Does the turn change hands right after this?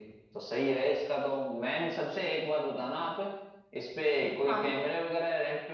No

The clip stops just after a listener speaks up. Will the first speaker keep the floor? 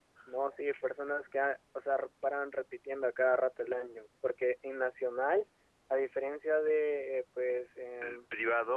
No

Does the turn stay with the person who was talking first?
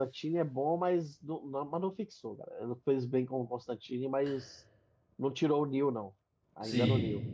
No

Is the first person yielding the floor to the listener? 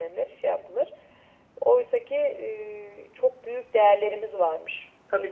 Yes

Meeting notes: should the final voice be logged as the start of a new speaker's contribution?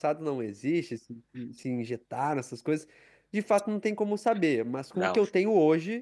No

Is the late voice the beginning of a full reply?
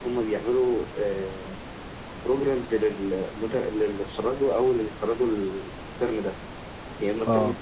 No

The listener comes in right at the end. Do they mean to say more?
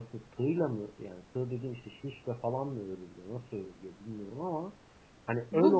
Yes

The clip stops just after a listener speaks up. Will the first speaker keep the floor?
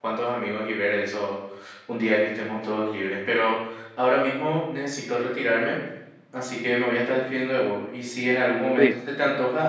Yes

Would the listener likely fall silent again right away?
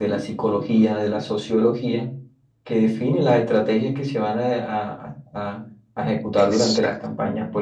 Yes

